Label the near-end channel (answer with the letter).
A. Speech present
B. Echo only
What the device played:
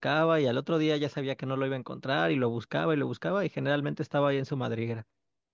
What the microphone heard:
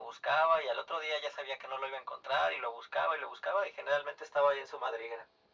B